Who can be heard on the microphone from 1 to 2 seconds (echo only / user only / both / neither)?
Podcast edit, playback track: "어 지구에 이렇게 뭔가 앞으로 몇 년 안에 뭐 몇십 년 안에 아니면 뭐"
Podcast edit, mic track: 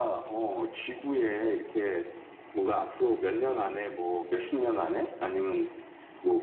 echo only